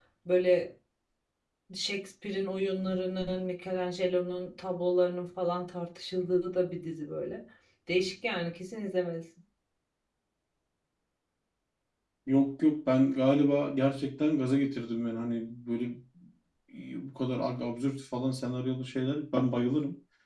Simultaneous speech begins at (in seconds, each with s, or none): none